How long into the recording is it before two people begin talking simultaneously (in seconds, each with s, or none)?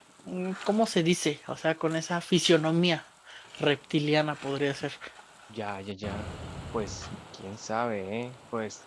none